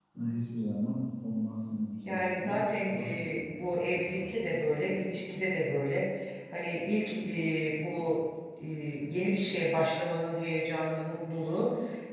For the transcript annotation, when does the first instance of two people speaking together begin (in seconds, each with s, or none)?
2.0 s